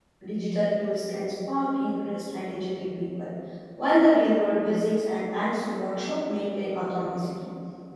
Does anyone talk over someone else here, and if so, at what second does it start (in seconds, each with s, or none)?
none